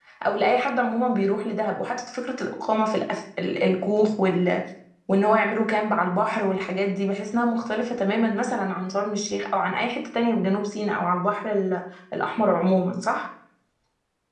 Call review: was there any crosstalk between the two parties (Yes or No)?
No